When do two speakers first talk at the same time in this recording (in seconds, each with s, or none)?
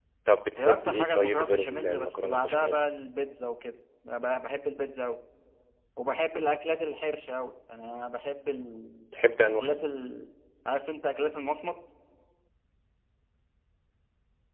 0.6 s